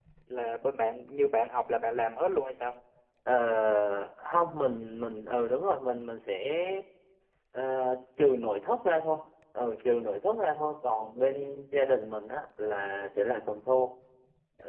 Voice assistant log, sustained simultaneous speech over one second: none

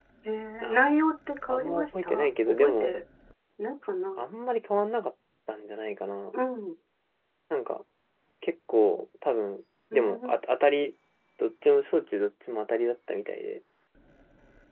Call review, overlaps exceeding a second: present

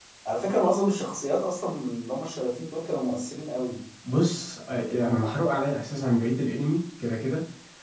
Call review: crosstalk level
none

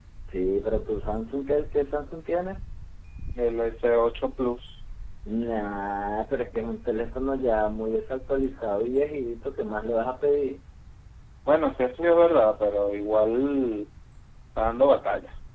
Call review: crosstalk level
none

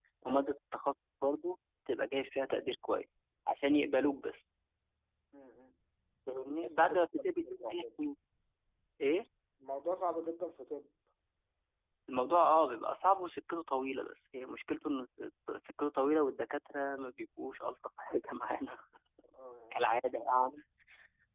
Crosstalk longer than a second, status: present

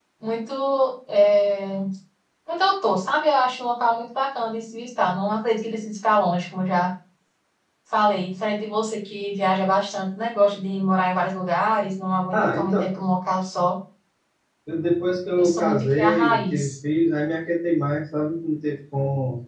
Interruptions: present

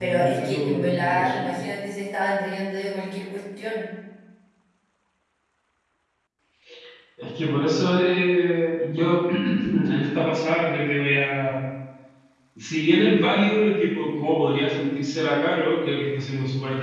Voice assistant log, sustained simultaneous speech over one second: present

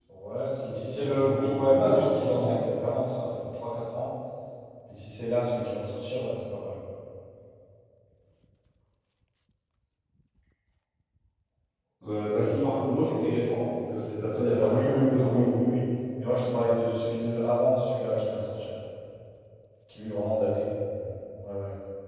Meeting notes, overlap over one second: present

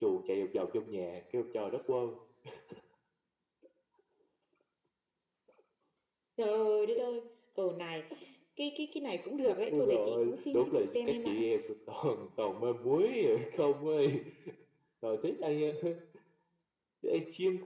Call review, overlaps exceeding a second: present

